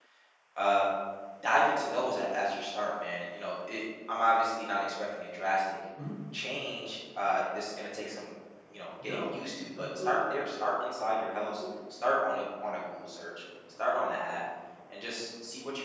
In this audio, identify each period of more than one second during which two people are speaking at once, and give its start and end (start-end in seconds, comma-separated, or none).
none